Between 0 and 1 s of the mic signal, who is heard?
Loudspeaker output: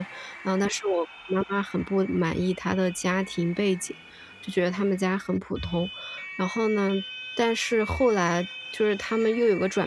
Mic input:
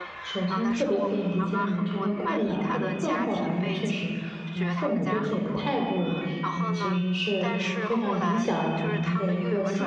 both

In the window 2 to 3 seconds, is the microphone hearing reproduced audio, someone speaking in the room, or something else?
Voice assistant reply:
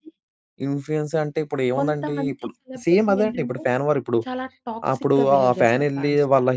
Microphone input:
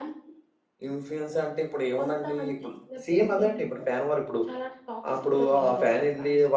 echo only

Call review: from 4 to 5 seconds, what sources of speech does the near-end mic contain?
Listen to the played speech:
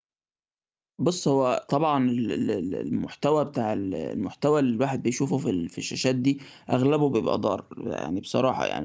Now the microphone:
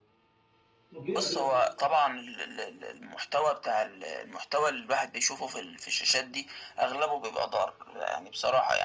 echo only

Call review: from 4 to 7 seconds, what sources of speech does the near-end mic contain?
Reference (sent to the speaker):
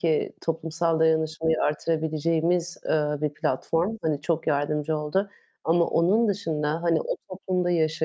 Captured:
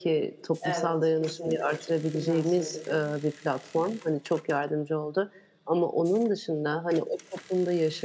echo only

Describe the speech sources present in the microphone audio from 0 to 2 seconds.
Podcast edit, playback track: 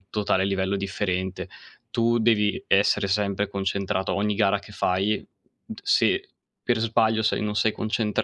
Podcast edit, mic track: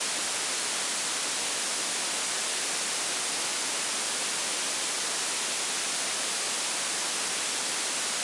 neither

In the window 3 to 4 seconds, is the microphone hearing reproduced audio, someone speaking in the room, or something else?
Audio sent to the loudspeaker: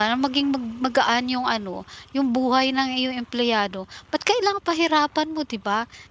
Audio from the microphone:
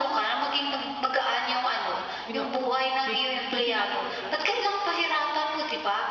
both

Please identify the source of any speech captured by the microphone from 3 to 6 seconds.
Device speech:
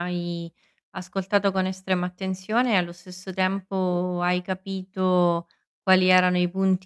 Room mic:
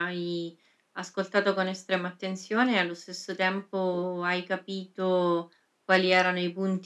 echo only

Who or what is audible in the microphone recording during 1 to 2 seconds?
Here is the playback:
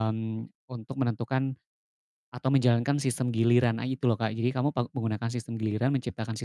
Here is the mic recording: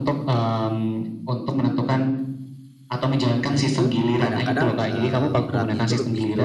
echo only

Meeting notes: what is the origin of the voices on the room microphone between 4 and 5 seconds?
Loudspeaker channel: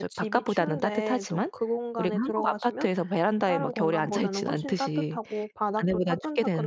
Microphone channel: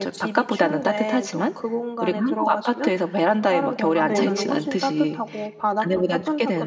both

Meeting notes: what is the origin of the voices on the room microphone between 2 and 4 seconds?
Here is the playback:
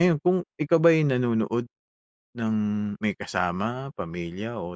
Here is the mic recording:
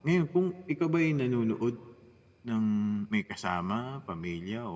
echo only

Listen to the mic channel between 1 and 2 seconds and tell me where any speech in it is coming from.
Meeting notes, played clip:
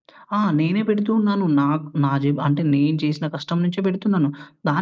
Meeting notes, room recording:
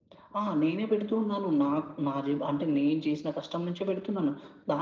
echo only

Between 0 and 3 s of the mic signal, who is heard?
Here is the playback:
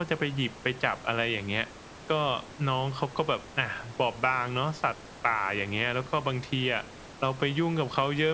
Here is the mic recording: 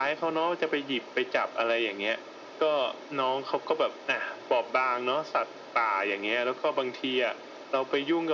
echo only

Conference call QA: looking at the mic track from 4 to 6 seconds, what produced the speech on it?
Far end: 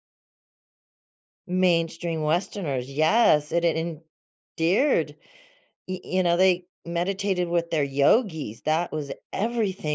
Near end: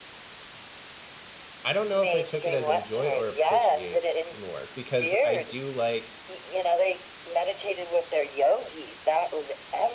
both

